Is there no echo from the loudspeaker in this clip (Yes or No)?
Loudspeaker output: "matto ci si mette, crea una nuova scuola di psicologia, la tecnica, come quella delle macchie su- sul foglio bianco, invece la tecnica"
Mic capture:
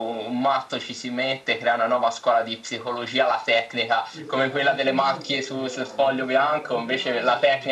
No